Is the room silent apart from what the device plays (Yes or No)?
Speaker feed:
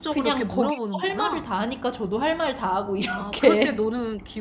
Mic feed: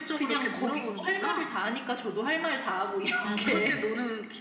No